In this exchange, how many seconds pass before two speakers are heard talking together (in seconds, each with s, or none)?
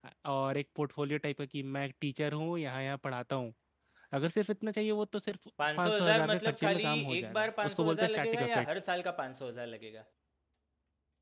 5.6 s